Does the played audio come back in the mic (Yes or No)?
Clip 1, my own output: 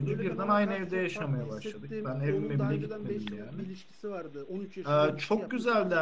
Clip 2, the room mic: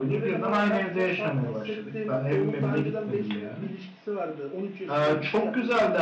Yes